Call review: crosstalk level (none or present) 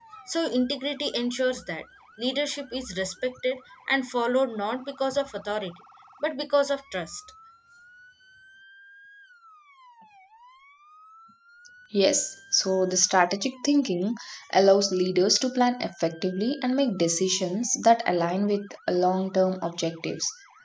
none